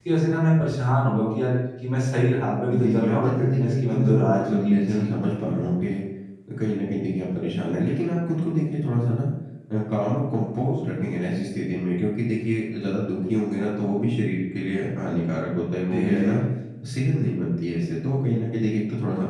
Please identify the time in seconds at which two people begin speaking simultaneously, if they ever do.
2.7 s

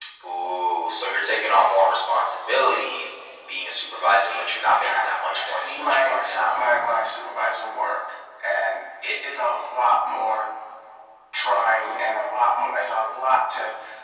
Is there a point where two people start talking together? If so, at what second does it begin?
4.3 s

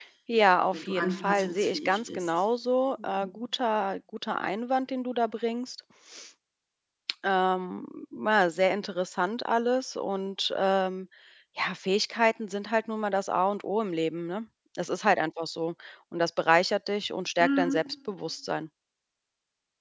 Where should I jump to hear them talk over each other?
0.7 s

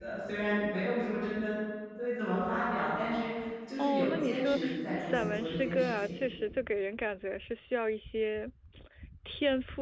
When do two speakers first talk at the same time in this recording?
3.8 s

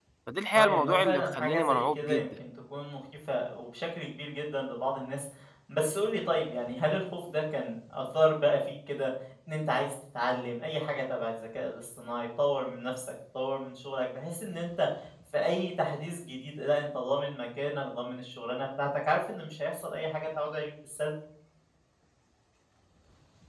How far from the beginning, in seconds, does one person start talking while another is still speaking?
0.6 s

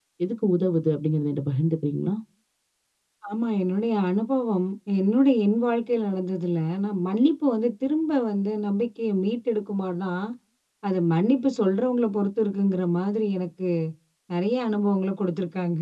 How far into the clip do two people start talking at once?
none

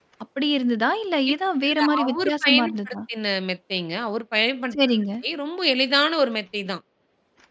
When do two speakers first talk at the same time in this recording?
1.7 s

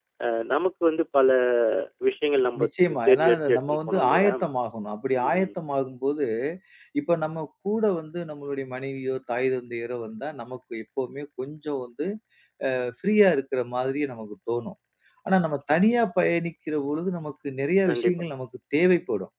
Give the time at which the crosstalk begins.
3.1 s

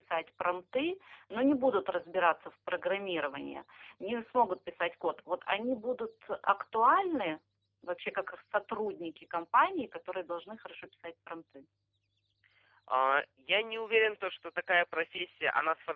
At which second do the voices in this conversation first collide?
none

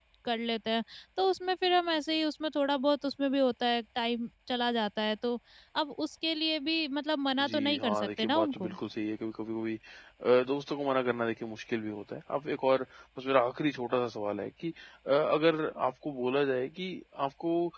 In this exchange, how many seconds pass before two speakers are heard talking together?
7.4 s

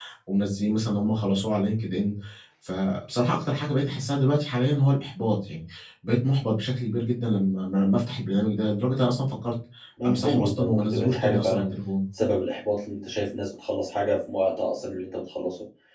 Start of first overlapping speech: 10.1 s

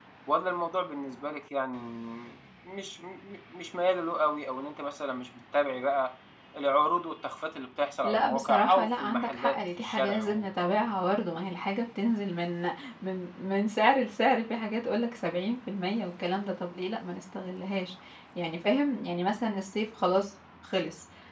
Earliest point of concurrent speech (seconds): 8.0 s

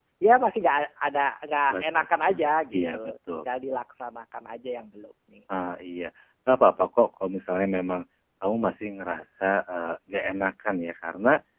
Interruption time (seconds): 1.7 s

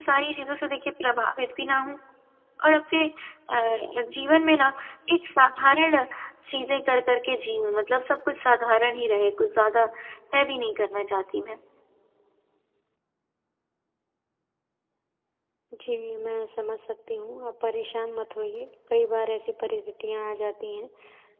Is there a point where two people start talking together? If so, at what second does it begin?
none

